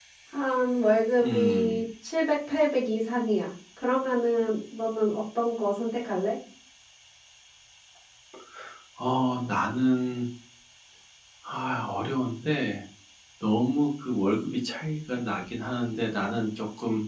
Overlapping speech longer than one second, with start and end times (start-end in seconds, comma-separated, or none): none